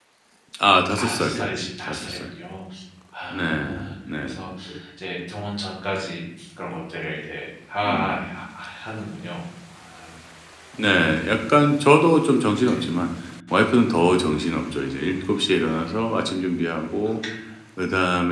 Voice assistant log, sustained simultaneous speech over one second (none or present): none